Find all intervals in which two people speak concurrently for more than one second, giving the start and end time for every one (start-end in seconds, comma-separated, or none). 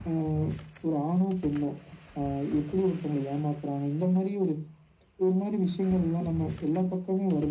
none